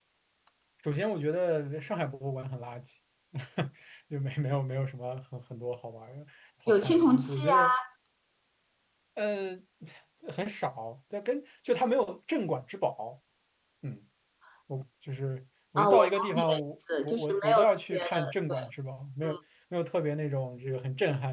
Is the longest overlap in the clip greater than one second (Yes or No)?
Yes